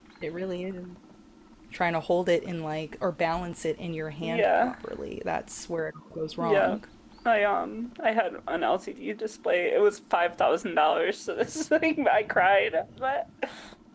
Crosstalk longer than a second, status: none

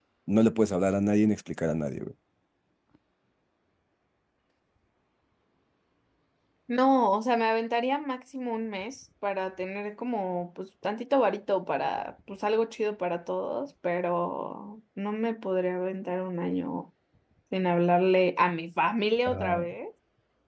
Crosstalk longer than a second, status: none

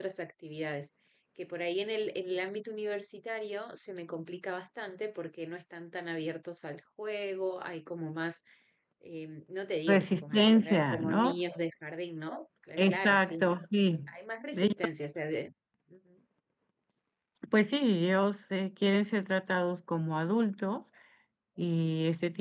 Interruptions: present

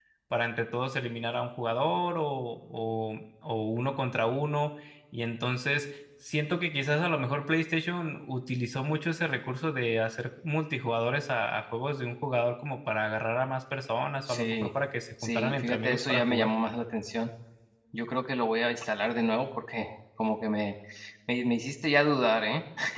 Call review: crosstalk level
present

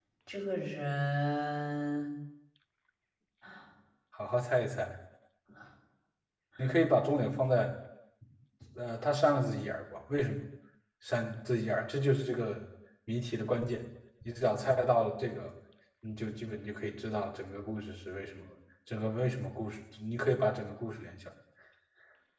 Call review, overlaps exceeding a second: none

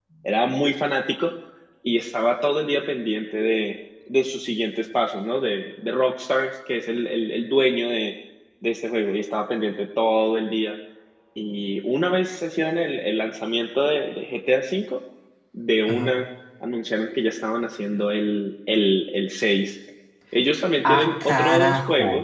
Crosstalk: present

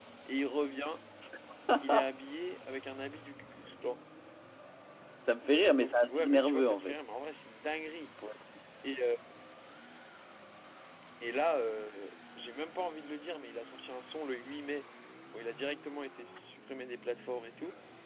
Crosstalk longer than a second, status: present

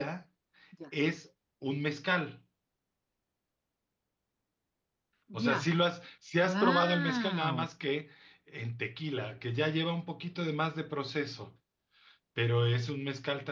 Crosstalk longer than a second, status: present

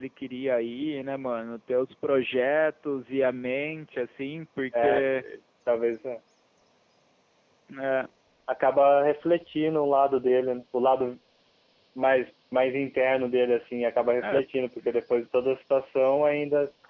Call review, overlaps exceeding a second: none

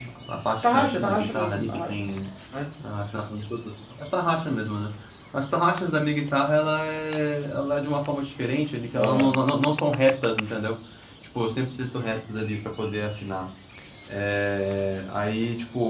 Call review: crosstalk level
present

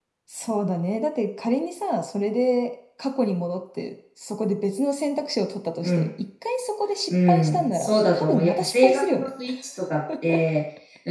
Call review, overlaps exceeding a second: present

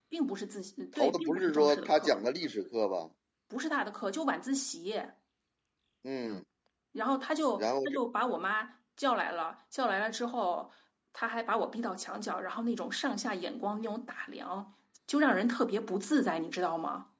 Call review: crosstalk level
present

